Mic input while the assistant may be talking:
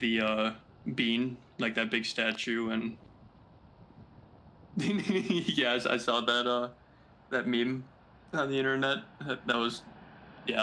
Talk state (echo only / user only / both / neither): echo only